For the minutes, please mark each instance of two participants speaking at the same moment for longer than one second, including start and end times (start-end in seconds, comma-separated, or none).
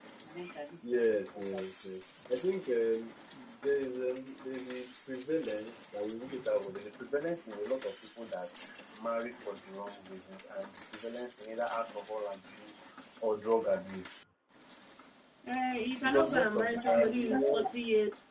16.0-17.6